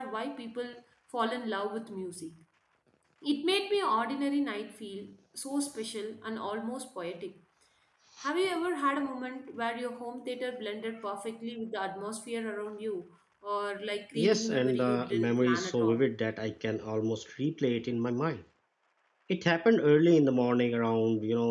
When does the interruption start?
14.2 s

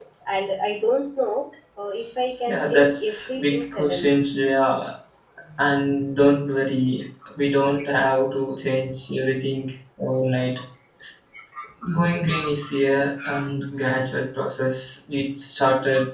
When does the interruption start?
2.5 s

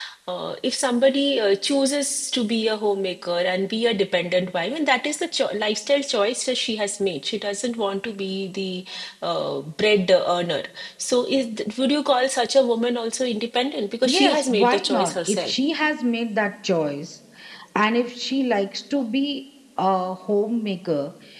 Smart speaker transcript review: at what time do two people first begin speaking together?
14.0 s

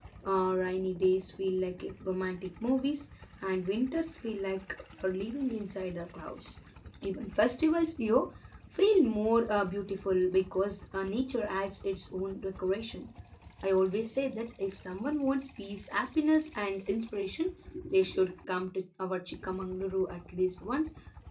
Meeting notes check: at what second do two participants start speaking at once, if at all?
none

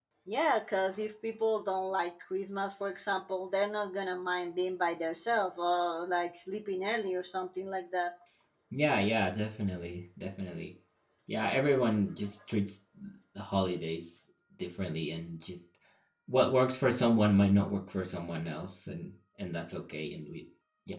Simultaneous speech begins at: none

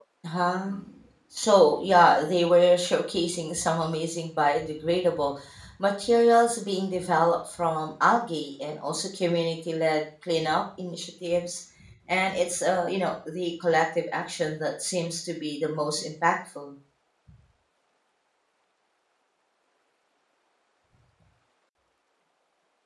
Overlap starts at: none

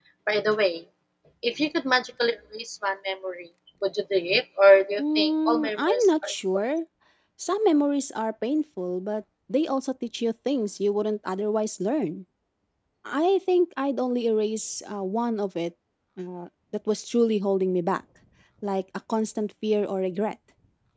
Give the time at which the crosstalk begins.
5.0 s

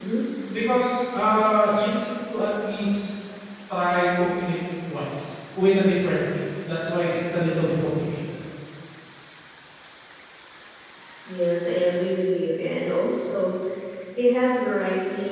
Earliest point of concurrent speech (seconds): none

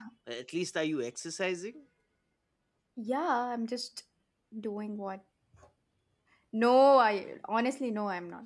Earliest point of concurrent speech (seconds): none

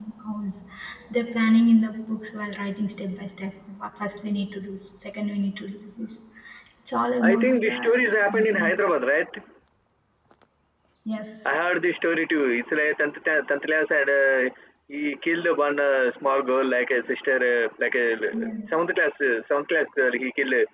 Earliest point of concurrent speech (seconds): 7.3 s

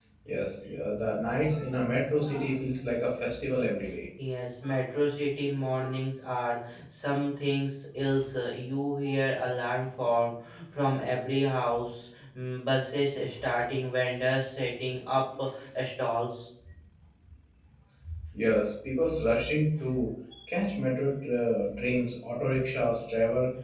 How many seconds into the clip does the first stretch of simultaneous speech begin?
none

